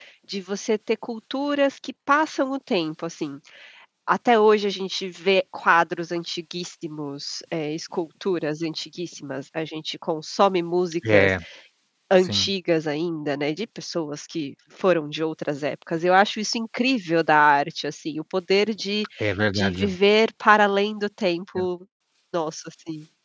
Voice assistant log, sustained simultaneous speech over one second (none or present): none